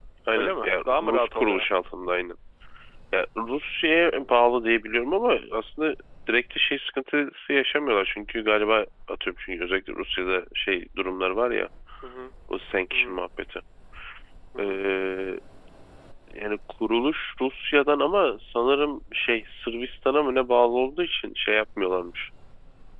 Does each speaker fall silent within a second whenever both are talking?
No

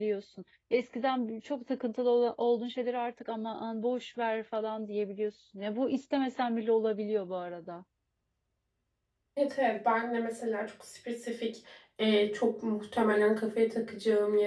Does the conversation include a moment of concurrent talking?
No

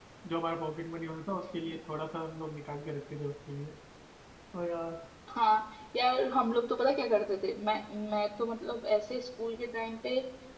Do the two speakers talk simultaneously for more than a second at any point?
No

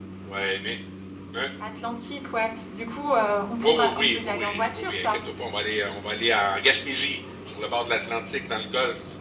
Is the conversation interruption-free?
No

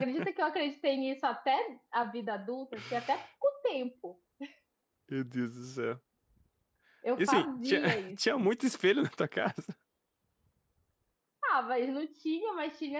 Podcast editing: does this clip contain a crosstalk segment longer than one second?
Yes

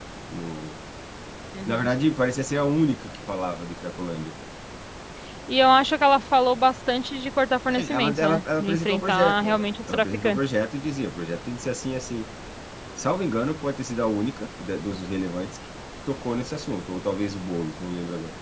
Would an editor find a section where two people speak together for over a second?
Yes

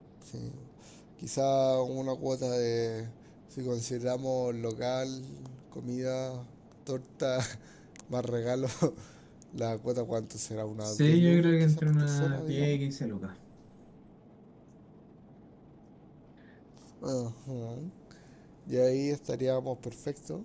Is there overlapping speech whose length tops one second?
Yes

